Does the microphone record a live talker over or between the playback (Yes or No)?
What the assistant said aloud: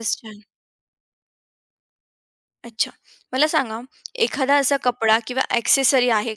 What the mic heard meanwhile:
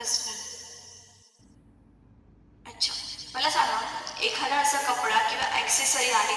No